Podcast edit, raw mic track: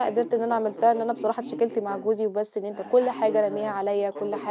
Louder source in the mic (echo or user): user